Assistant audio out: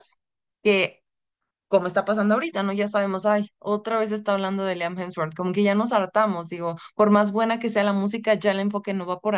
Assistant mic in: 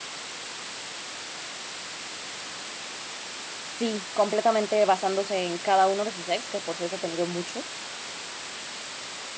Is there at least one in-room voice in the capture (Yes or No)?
Yes